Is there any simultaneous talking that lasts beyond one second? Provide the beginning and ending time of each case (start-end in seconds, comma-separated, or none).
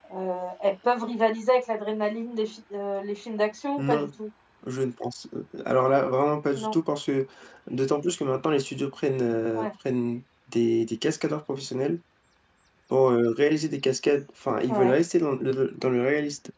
none